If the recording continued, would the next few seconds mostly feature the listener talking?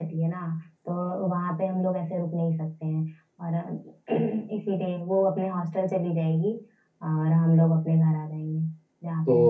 Yes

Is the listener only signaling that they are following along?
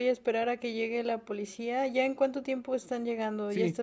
No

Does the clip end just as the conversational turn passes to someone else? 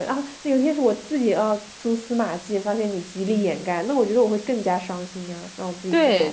Yes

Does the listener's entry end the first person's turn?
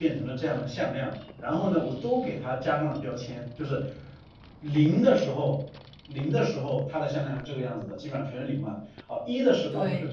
No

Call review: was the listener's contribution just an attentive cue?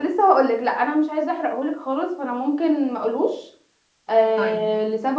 Yes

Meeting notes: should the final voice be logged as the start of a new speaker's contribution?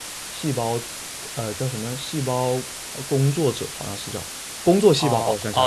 Yes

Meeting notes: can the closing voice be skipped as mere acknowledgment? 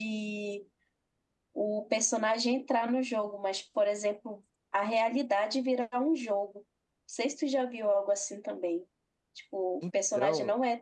Yes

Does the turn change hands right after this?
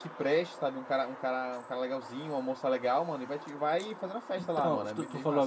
Yes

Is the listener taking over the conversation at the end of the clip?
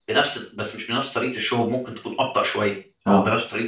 No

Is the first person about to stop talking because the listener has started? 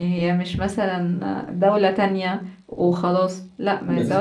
No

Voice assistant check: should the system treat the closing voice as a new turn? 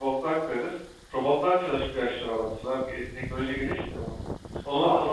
No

